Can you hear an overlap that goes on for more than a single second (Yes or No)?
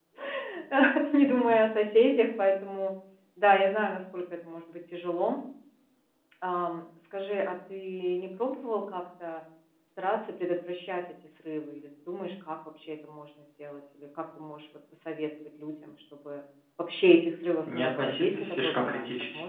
Yes